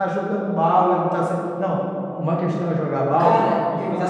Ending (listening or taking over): taking over